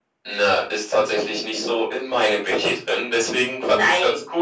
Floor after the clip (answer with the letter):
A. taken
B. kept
B